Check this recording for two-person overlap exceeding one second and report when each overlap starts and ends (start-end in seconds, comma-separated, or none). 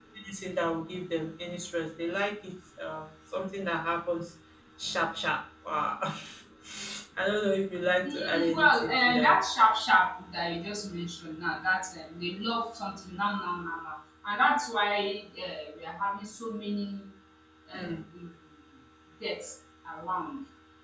8.0-9.4